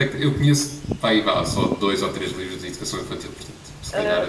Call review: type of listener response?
taking over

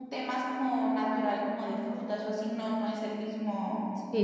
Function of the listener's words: taking over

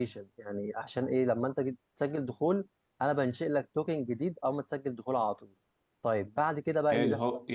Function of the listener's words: taking over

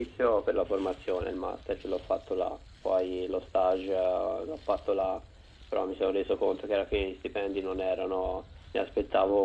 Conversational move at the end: listening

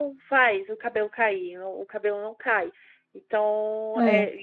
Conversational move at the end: listening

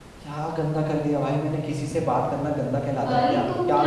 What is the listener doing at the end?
taking over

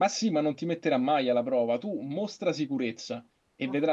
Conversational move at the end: listening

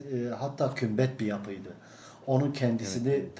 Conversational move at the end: listening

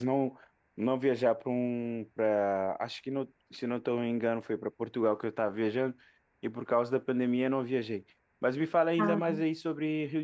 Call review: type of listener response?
listening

